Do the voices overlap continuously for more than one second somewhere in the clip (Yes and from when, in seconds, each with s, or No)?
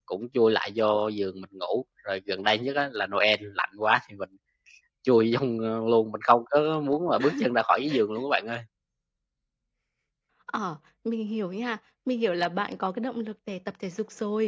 No